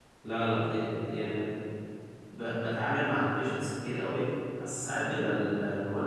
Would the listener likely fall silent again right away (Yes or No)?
Yes